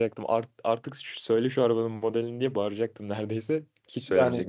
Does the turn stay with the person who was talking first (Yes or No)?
No